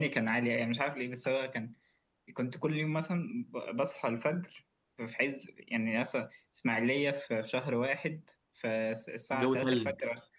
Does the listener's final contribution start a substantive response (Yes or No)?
No